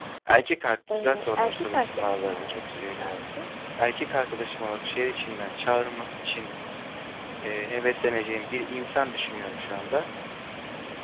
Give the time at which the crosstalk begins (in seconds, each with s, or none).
0.9 s